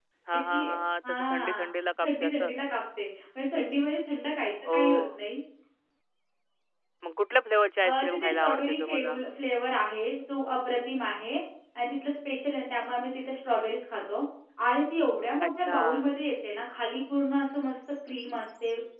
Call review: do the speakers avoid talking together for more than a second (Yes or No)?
No